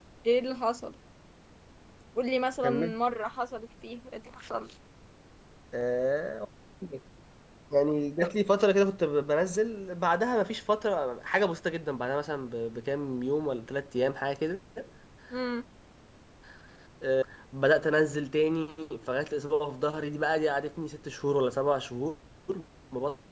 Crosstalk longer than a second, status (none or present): none